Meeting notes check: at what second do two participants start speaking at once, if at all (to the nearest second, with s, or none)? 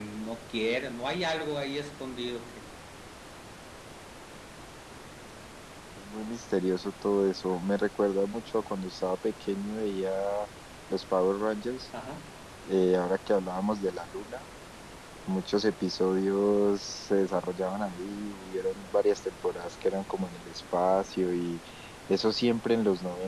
none